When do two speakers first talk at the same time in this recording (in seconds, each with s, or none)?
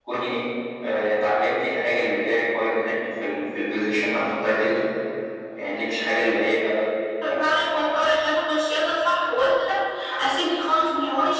none